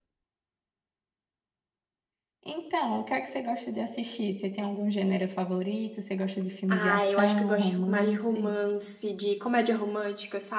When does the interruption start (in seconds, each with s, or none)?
6.7 s